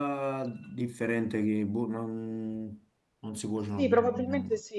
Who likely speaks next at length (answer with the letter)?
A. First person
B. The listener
B